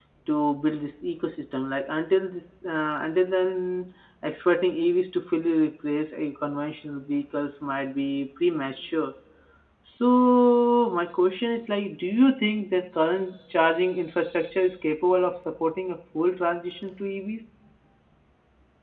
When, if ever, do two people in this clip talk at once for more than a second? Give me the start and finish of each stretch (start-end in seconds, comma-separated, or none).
none